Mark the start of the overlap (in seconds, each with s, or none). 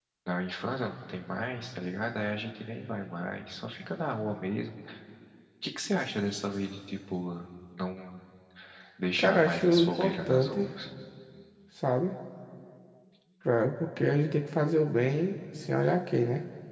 9.2 s